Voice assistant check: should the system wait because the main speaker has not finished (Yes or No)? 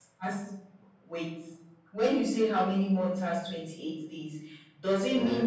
Yes